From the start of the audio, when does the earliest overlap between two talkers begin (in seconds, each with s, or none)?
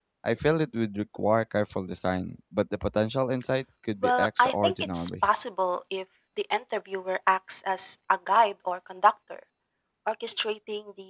4.0 s